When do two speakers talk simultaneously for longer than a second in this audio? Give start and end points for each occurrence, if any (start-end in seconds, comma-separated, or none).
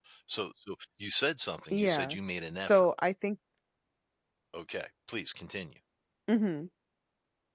none